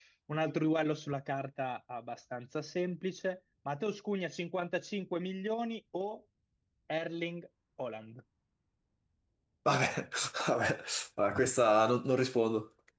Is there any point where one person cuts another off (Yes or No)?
No